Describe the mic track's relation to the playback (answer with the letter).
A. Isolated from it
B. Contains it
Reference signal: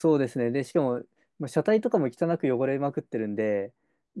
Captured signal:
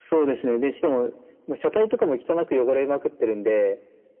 B